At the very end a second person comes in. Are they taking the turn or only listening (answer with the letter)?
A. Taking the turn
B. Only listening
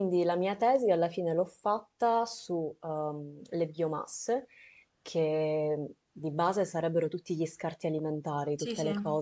B